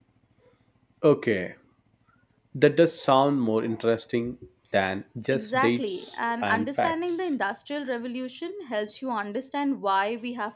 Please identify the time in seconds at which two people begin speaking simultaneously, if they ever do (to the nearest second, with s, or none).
5 s